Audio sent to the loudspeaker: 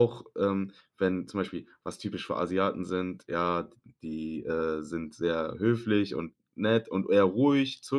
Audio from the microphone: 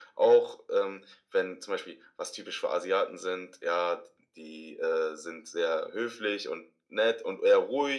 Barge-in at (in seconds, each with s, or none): none